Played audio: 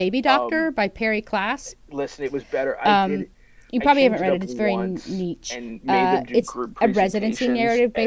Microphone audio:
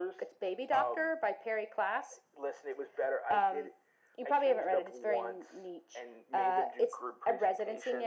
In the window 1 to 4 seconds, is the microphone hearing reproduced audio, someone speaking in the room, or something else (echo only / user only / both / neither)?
echo only